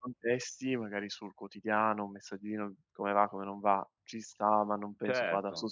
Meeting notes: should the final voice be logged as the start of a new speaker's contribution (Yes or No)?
Yes